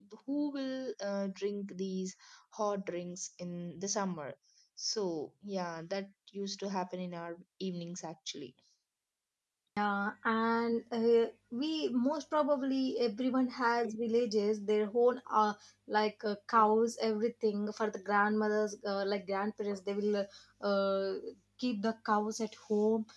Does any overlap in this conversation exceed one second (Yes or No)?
No